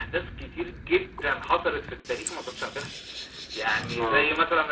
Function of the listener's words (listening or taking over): listening